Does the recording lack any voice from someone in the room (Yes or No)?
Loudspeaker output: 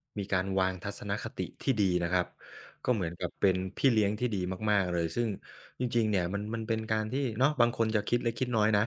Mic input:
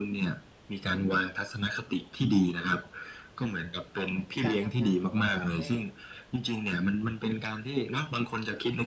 No